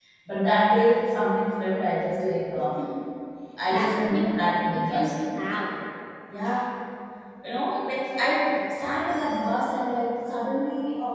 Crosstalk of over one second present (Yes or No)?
Yes